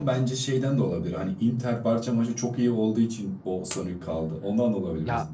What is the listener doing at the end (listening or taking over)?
taking over